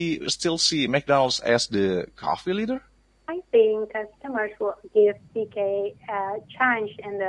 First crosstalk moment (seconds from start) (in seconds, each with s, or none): none